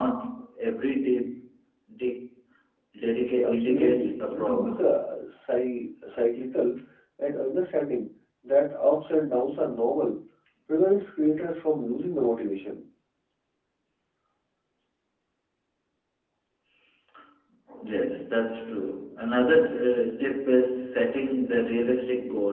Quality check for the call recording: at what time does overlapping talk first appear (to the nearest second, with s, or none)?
3 s